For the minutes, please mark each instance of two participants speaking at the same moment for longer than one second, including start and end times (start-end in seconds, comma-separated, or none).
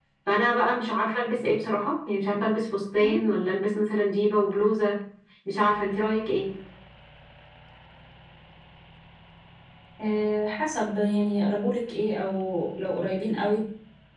none